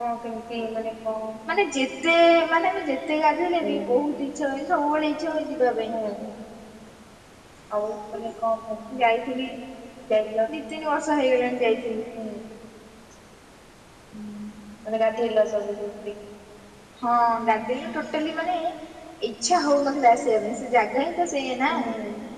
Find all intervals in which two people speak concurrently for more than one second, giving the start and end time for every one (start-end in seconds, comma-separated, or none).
none